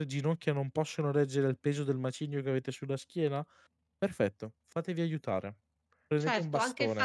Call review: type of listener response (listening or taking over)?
taking over